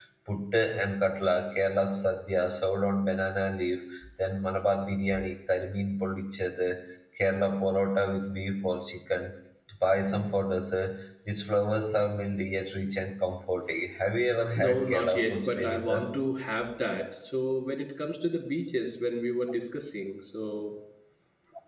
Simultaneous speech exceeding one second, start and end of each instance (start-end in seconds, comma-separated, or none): 14.6-16.1